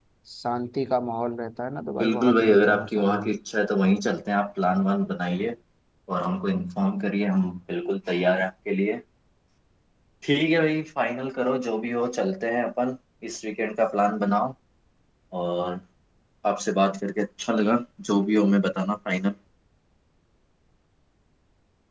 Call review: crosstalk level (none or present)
present